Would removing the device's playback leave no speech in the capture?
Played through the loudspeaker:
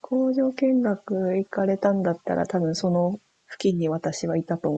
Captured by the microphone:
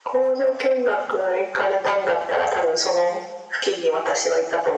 Yes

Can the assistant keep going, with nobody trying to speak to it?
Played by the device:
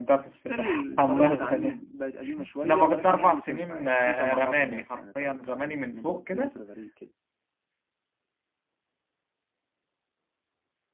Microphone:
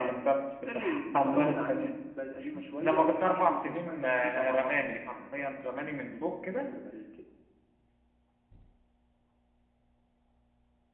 Yes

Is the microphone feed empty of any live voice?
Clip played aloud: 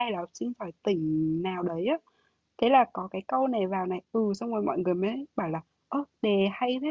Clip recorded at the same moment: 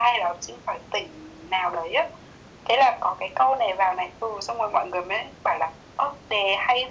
Yes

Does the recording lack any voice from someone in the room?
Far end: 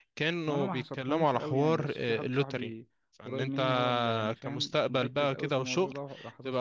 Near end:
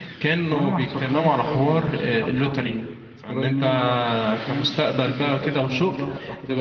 Yes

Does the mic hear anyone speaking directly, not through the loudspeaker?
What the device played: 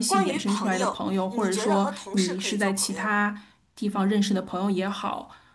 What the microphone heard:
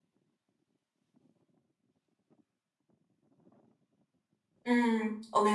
Yes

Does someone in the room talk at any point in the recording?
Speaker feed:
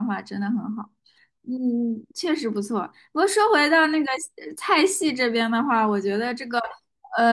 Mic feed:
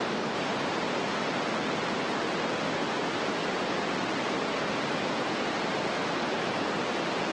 No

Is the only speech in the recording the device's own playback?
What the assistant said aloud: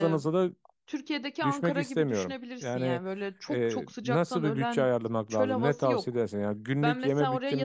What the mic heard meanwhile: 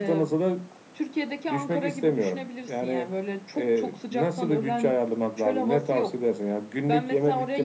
Yes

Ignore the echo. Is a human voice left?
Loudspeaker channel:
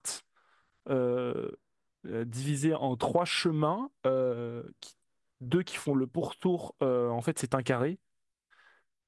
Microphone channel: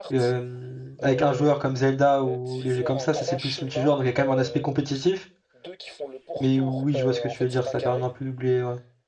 Yes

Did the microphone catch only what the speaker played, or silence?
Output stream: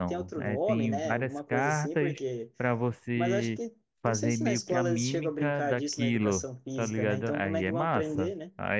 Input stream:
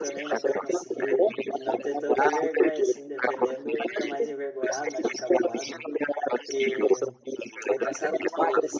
No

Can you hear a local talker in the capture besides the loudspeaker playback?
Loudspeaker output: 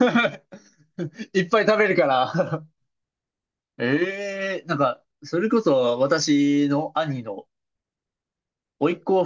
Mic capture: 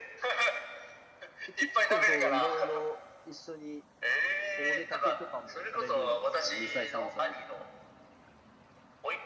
Yes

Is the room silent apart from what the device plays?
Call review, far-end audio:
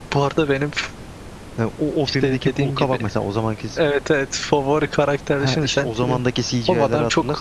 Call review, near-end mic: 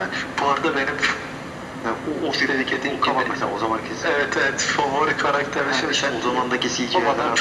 Yes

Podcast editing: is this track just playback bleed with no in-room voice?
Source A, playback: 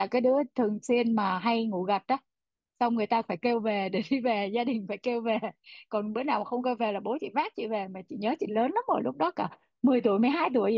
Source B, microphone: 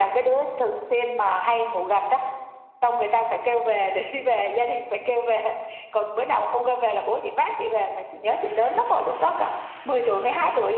Yes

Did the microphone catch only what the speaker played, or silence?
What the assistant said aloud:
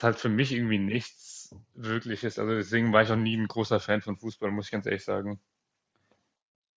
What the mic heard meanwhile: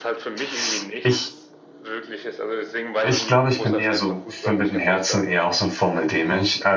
No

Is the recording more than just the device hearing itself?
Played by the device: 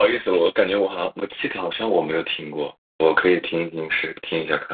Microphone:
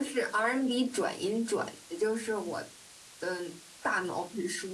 Yes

